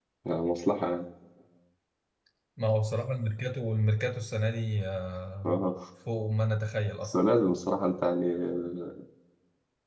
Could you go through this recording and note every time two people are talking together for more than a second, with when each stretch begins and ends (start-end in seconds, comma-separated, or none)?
none